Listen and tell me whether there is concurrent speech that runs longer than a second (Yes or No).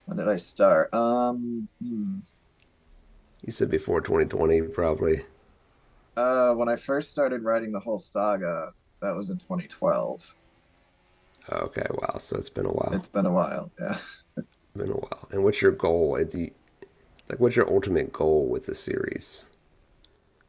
No